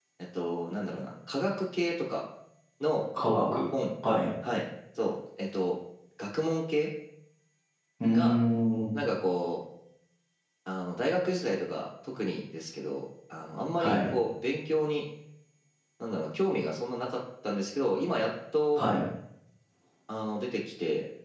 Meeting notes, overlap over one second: none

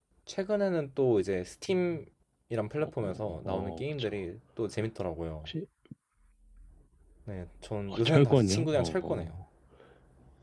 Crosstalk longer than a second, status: present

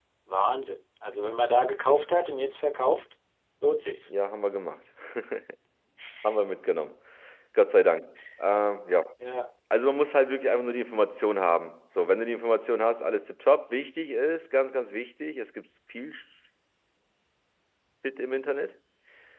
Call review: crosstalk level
none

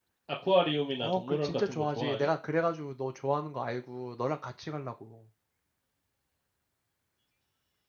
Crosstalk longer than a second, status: present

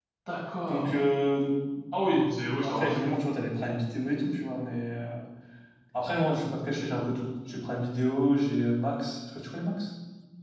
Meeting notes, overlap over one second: none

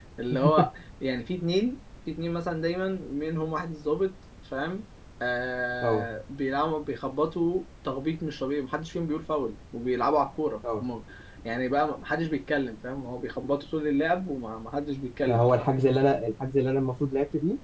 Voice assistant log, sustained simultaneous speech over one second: none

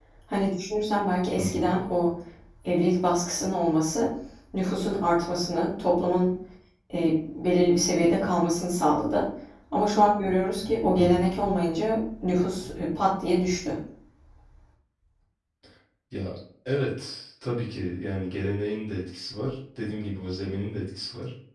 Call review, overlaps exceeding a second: none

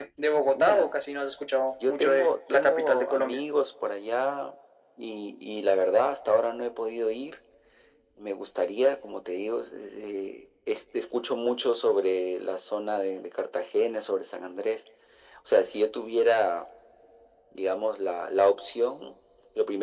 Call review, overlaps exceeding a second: present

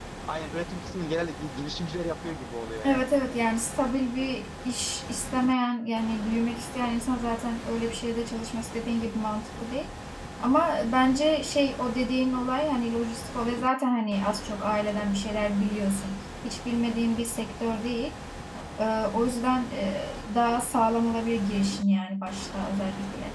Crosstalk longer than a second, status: none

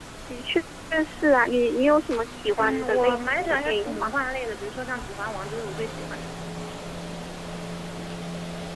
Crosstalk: present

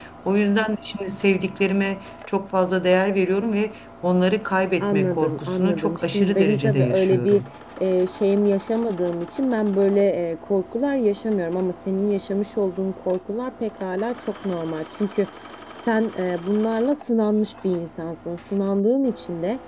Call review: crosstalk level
present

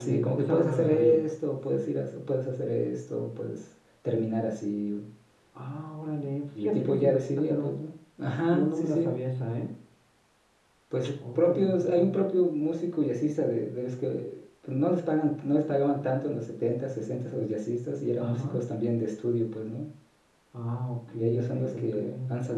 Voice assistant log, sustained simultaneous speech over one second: present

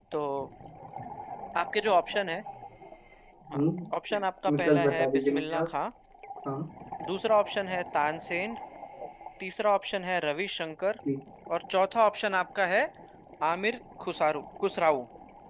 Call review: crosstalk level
present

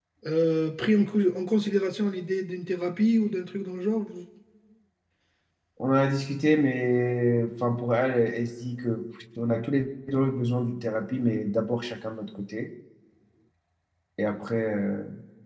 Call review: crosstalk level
none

